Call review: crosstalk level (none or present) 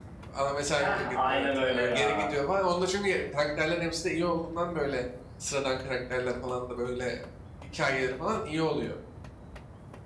present